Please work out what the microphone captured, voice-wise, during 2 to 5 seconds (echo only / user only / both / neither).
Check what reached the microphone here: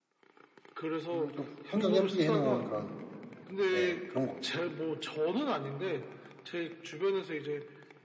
both